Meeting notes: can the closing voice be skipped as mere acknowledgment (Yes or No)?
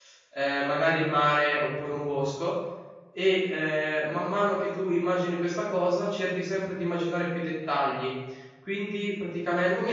No